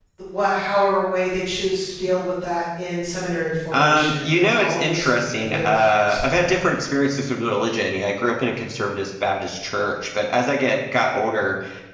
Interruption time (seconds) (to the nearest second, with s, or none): 4 s